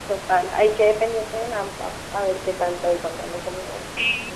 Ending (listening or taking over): taking over